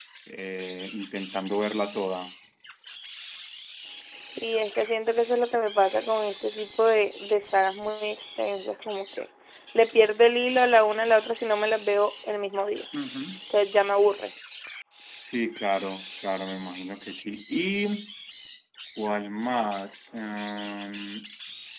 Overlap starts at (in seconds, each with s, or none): none